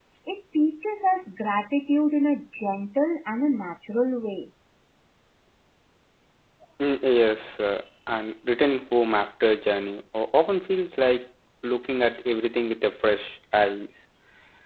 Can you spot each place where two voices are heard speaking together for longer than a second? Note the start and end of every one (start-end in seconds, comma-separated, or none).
none